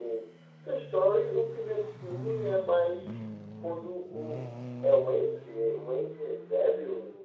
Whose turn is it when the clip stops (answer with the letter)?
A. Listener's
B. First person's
B